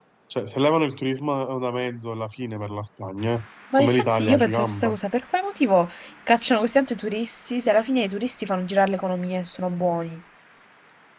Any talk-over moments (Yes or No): Yes